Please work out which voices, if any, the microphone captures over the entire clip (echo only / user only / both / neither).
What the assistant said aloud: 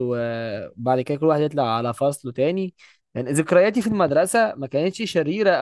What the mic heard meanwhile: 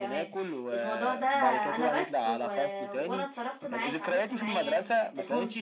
both